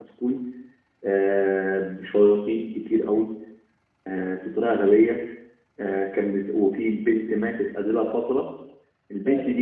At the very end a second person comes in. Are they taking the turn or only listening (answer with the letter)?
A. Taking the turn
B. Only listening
B